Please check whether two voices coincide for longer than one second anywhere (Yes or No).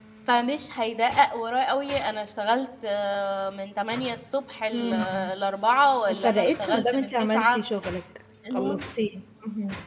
Yes